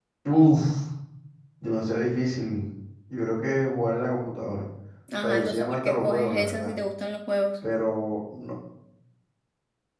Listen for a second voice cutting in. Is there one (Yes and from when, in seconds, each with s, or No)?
Yes, from 5.1 s